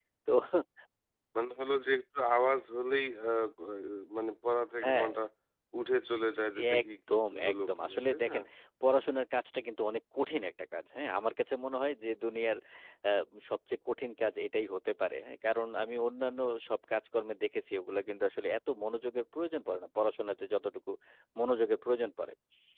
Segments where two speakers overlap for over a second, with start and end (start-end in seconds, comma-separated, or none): 6.8-8.4